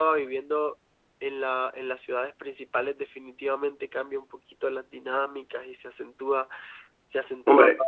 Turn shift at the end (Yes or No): No